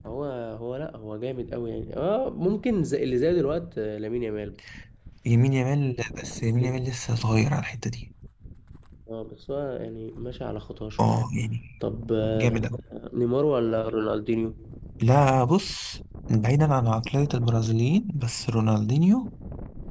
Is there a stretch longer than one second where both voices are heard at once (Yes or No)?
No